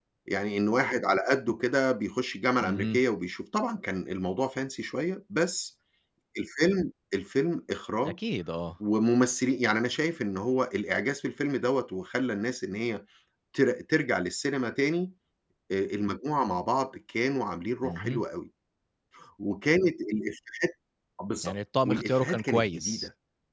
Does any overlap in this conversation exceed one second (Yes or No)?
Yes